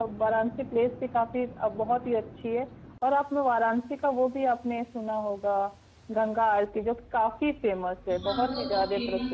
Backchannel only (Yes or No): No